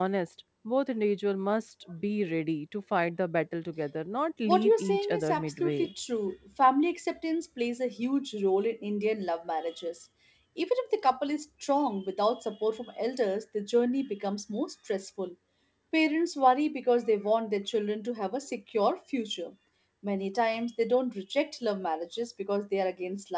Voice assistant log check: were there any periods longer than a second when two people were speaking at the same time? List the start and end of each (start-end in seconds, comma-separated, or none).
4.5-5.9